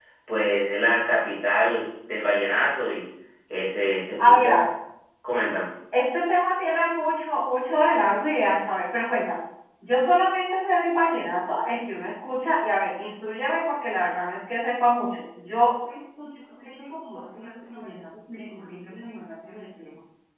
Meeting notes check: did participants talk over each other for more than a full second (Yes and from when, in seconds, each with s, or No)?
No